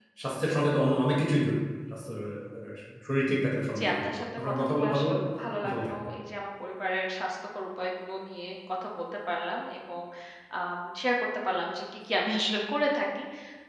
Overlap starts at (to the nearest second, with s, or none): 4 s